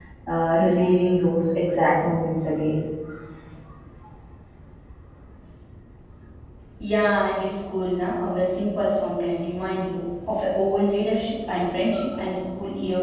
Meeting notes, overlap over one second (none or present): none